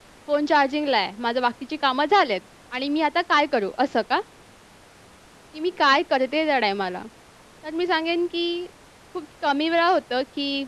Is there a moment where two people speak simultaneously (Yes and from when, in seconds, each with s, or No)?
No